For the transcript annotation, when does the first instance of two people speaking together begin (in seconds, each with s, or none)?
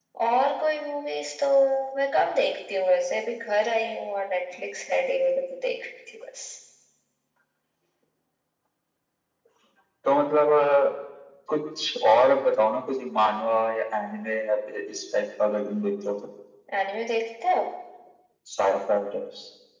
none